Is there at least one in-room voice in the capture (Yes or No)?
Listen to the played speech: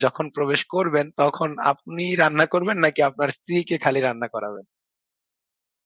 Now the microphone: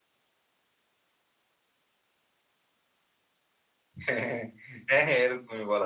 Yes